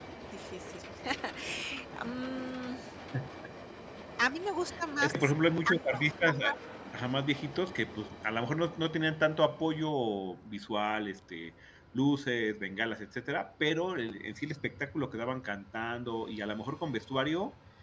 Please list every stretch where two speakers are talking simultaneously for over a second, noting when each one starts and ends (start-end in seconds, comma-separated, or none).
none